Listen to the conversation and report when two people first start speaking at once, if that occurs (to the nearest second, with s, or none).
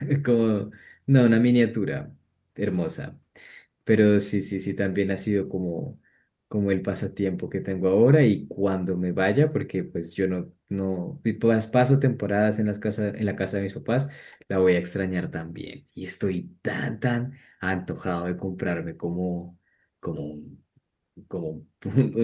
none